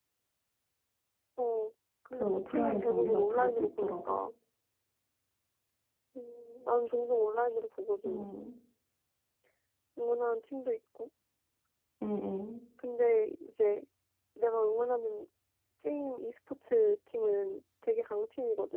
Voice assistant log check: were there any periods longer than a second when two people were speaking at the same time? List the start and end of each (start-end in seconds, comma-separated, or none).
2.1-4.2